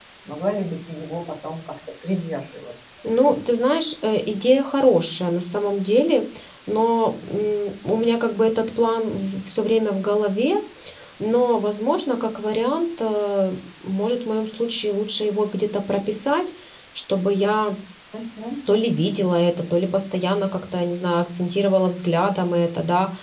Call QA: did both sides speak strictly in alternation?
Yes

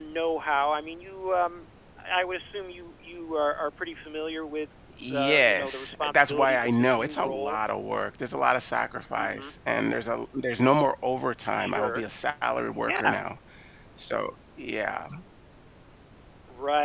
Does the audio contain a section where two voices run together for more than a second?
Yes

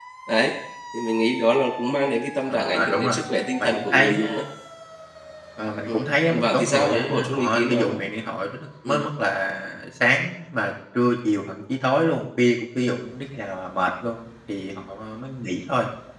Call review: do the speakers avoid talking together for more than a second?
No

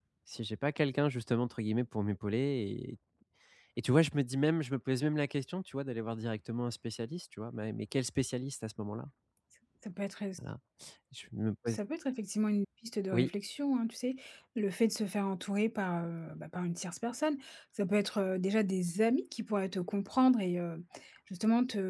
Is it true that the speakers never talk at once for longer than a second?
Yes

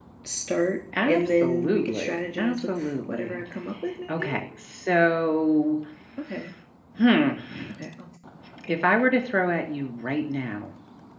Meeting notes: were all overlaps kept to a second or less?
No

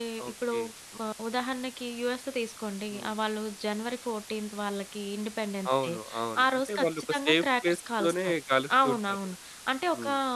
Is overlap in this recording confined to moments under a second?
No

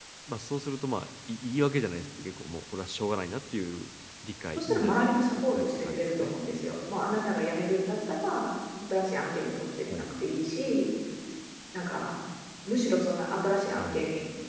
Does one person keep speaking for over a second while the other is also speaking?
Yes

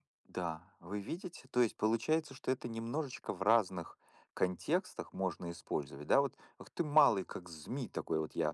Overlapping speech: No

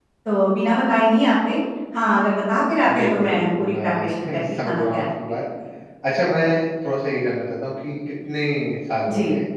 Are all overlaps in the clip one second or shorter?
No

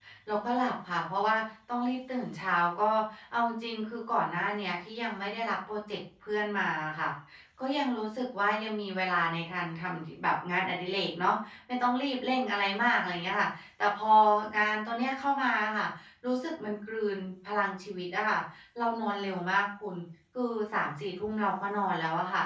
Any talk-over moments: No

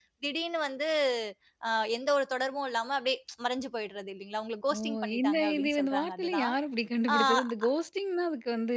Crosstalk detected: Yes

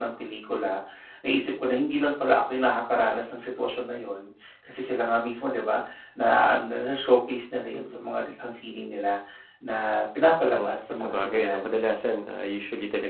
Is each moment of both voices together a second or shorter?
No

